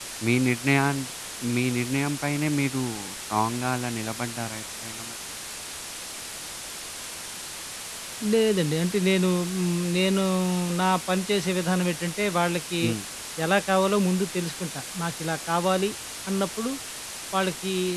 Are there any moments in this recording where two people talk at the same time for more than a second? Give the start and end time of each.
none

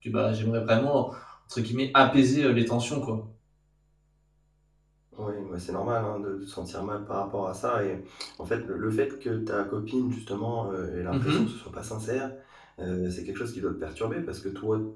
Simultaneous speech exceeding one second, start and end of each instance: none

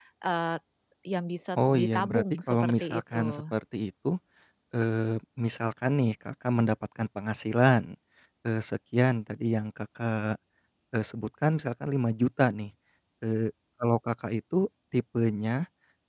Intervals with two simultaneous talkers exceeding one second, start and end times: 1.6-3.4

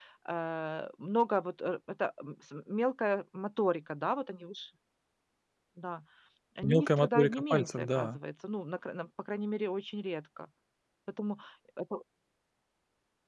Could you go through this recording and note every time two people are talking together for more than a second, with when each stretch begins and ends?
6.6-8.2

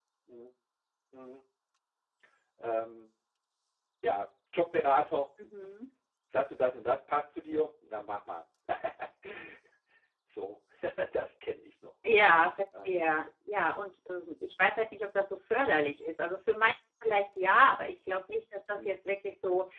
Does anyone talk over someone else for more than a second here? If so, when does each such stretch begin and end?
none

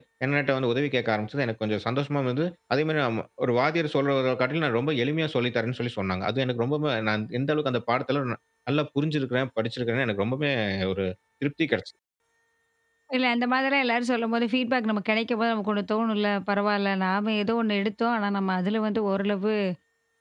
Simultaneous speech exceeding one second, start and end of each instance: none

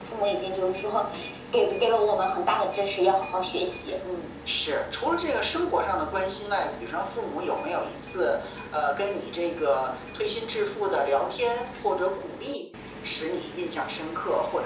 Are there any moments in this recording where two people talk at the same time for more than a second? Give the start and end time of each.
none

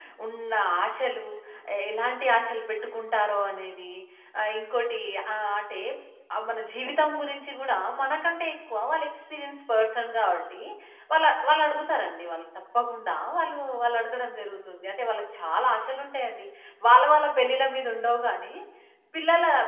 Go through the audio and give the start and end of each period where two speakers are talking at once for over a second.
none

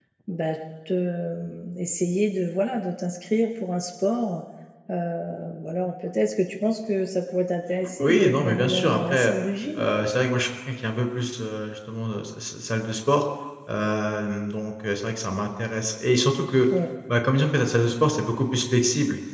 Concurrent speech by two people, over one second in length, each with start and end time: 8.0-9.3

